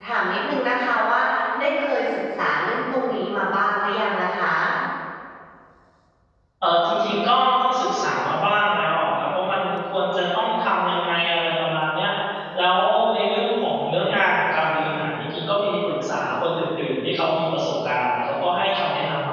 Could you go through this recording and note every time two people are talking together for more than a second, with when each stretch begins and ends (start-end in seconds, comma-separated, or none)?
none